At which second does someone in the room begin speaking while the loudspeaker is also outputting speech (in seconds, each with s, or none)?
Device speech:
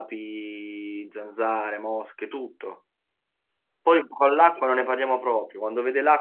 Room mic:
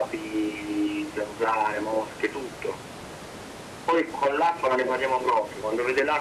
none